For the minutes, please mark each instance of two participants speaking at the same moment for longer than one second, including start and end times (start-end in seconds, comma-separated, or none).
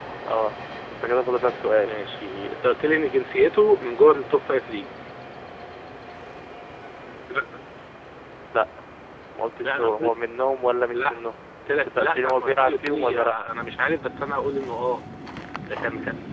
11.7-13.4